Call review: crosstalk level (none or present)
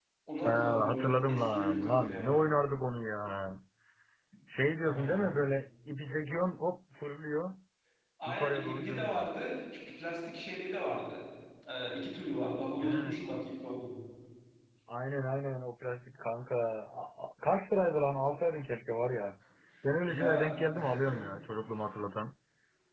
present